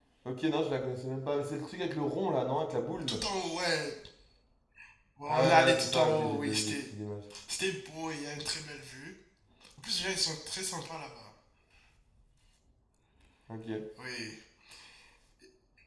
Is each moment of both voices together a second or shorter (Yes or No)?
No